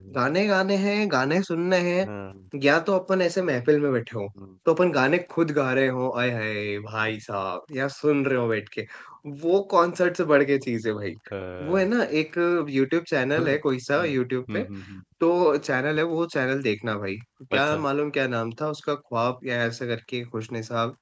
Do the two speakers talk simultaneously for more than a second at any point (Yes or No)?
No